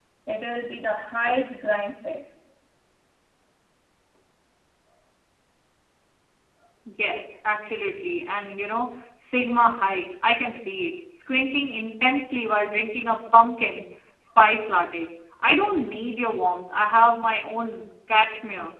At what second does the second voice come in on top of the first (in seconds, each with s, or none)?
none